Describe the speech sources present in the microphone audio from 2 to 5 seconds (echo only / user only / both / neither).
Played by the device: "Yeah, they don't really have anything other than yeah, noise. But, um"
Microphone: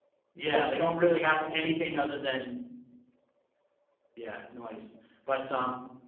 echo only